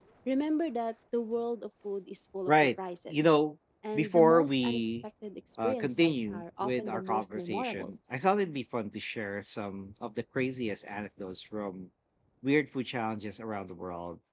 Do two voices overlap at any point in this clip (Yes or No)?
Yes